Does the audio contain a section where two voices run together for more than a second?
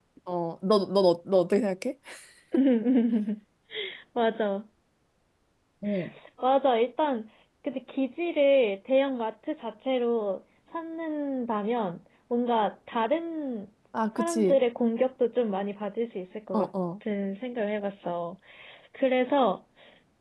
No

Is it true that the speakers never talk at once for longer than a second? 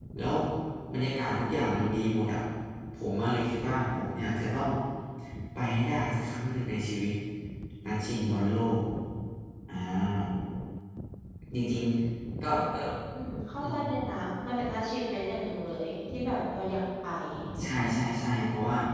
Yes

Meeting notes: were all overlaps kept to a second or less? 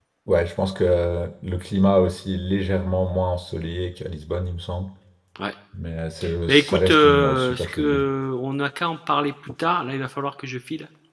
No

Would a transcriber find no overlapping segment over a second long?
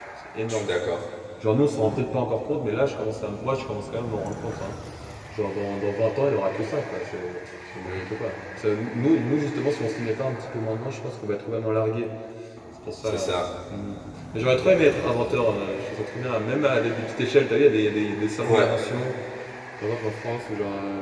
Yes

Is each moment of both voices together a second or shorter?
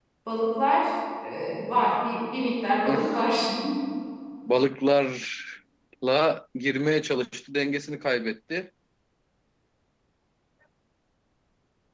Yes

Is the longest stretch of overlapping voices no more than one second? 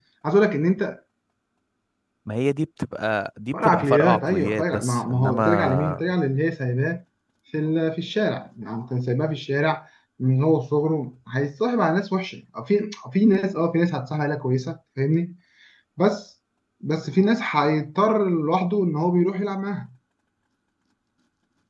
No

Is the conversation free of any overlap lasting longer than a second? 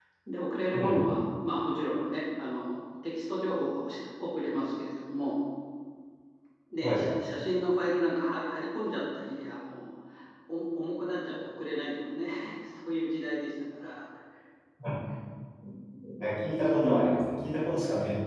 Yes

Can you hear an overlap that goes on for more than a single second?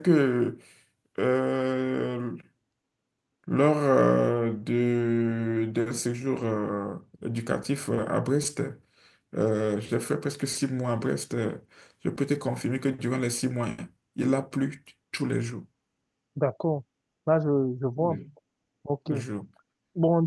No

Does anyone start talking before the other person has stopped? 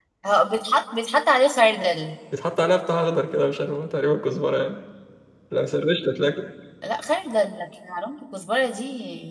No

